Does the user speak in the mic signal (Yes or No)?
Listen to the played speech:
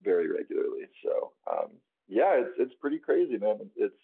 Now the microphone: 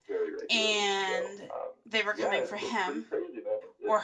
Yes